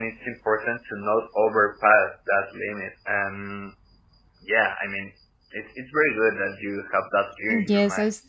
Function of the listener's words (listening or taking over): taking over